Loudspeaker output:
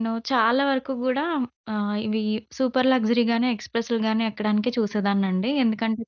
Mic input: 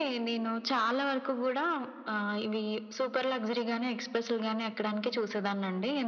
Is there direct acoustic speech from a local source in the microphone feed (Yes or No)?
No